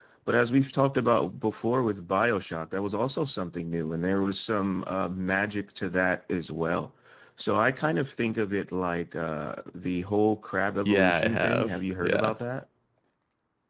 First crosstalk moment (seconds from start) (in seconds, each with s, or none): 10.8 s